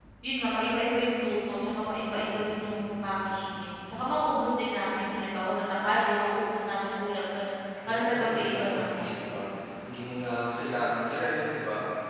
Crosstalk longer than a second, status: present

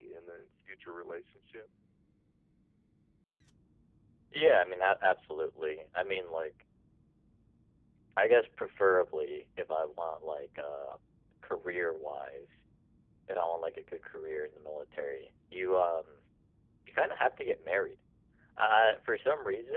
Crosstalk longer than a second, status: none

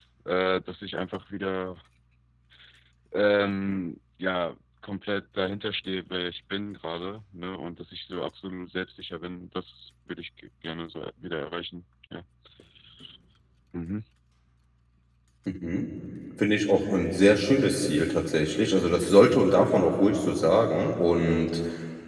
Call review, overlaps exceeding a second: none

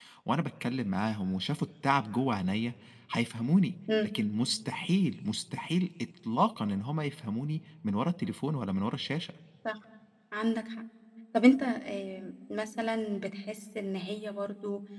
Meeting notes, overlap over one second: none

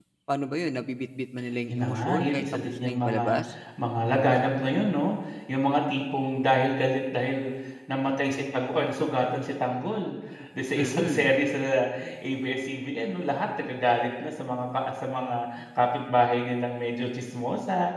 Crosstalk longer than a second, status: present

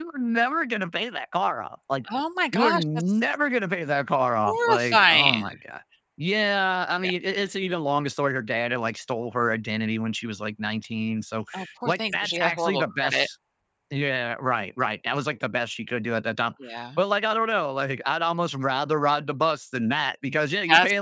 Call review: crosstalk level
present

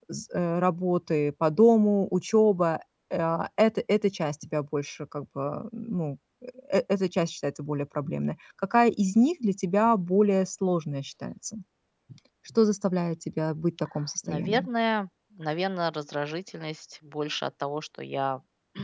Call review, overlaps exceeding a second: none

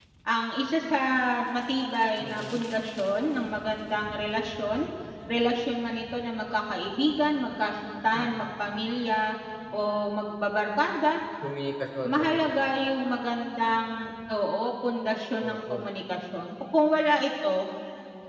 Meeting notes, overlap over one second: none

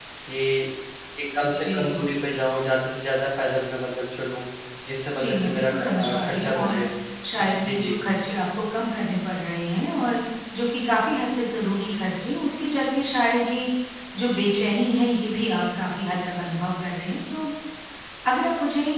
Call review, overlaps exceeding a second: present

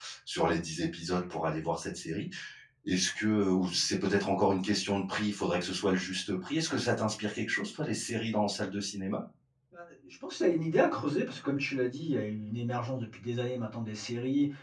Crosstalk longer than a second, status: none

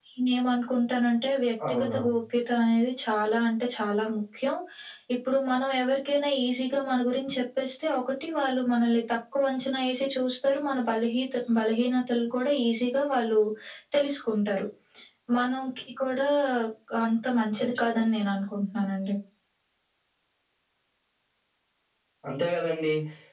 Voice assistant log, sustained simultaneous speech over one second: none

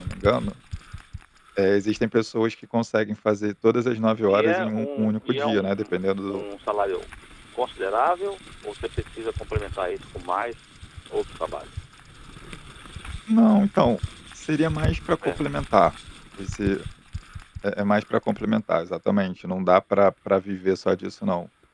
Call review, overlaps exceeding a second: present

